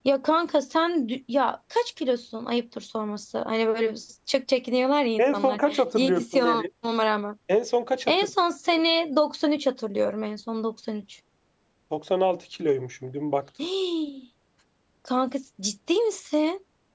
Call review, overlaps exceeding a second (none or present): present